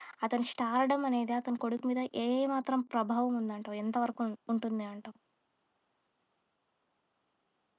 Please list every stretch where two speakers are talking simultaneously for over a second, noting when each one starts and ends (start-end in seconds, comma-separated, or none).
none